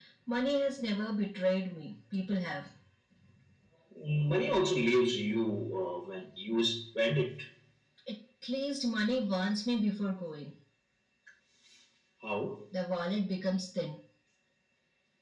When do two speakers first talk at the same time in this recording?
none

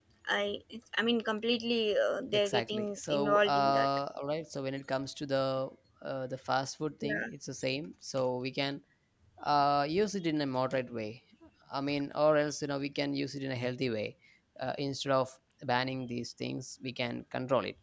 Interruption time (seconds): 2.3 s

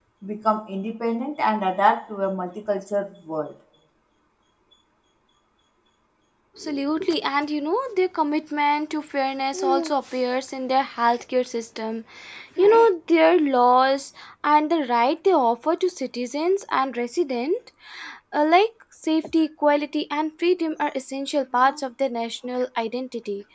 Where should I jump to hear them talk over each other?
none

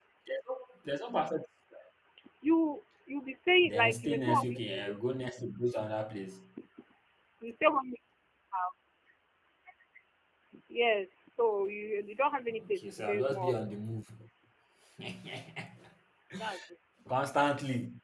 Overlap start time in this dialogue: 3.6 s

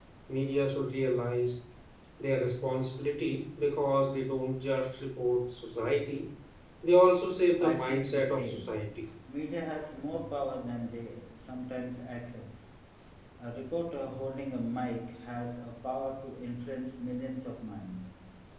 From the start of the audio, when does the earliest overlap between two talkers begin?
7.6 s

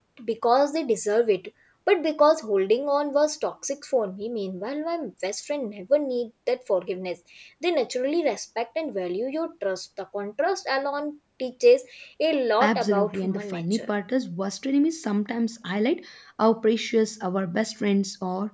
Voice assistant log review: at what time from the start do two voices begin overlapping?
12.6 s

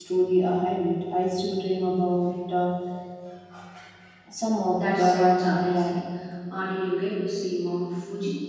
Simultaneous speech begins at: 4.7 s

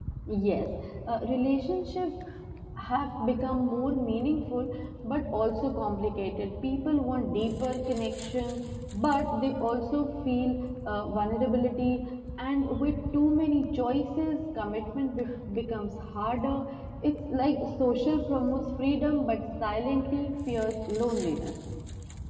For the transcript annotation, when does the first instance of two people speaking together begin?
none

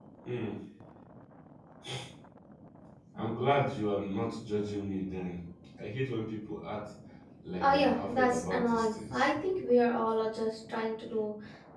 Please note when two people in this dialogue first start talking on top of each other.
7.6 s

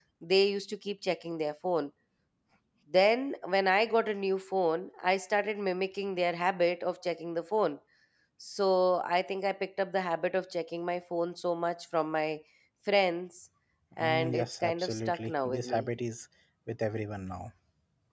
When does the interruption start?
14.0 s

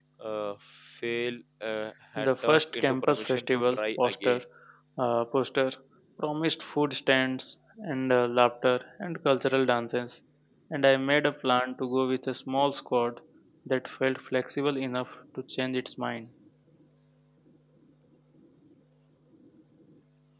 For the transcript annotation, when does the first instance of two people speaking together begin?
2.2 s

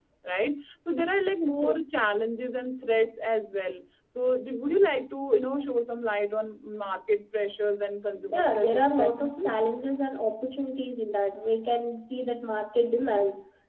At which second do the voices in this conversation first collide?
8.3 s

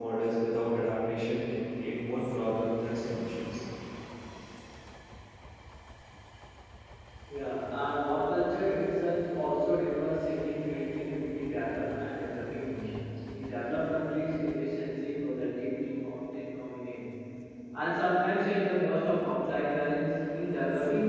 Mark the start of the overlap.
none

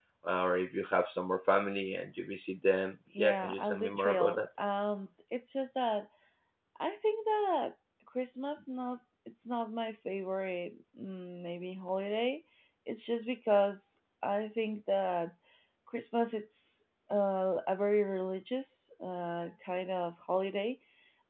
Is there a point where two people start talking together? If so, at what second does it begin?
3.1 s

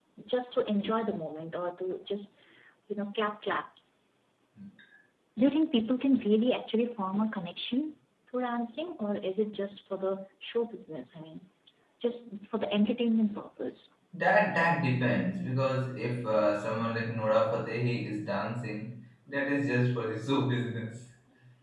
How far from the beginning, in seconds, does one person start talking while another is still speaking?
none

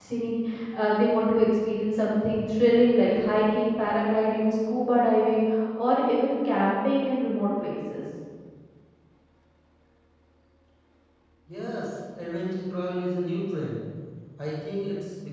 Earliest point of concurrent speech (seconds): none

